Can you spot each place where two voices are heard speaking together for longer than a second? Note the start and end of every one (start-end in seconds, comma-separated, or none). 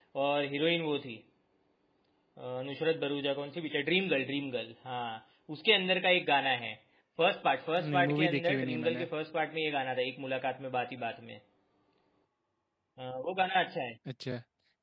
7.8-9.1